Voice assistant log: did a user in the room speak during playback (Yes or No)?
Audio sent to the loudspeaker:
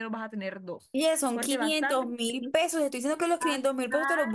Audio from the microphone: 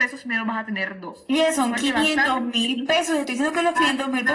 No